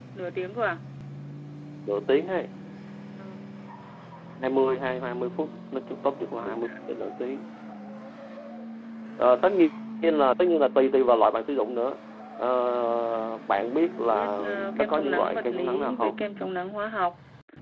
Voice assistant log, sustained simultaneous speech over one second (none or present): present